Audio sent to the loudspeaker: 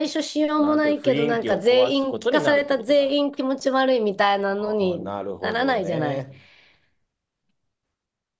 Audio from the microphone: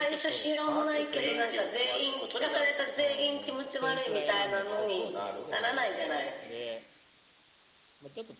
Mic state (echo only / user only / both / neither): both